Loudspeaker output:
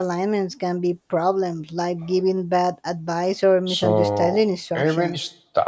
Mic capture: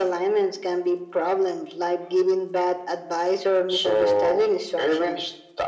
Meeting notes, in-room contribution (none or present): none